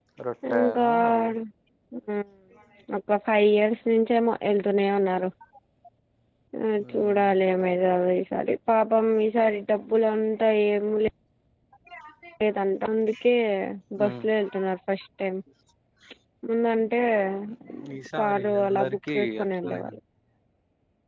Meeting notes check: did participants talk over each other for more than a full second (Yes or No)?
Yes